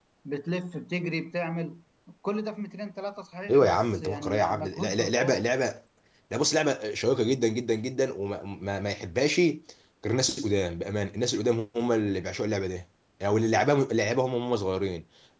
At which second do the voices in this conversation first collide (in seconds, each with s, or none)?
3.5 s